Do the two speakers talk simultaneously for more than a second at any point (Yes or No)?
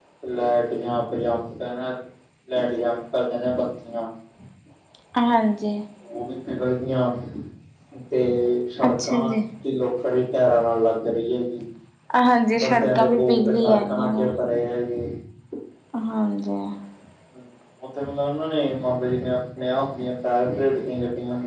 Yes